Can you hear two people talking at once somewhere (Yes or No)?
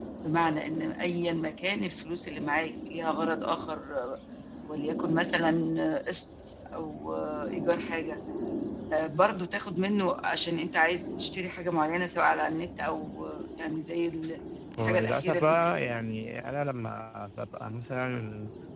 Yes